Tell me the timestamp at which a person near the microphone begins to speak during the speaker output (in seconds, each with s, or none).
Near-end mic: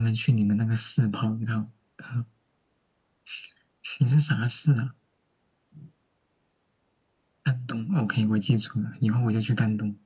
none